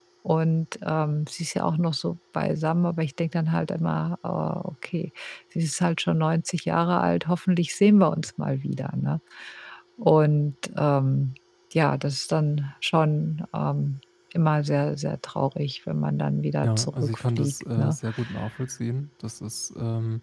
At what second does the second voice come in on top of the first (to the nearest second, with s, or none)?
17 s